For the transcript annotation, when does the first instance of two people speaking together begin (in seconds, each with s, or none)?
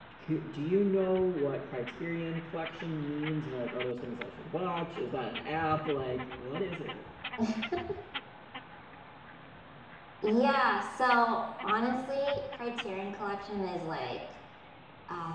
none